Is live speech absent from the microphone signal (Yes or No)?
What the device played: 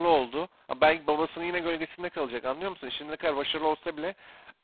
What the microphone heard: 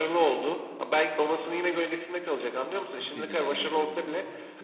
No